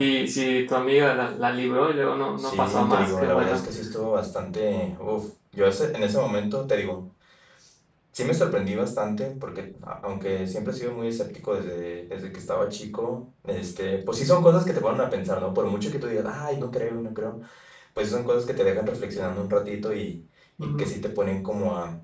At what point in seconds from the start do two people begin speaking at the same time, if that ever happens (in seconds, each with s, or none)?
2.4 s